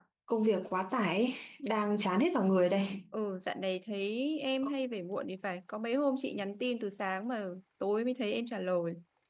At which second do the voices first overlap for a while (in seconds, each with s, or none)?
none